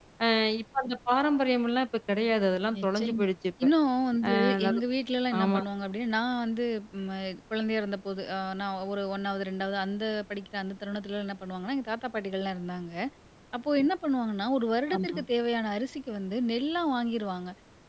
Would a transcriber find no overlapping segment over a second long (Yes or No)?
Yes